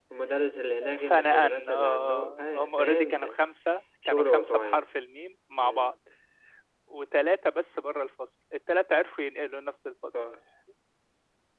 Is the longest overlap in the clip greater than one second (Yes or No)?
Yes